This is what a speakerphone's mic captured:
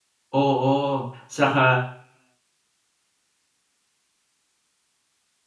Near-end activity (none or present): present